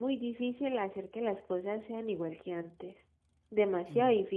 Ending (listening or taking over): listening